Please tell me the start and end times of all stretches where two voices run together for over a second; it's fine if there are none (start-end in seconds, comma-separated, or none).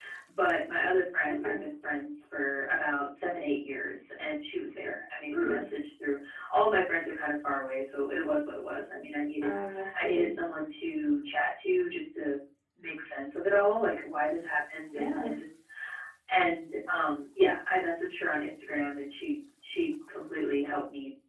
none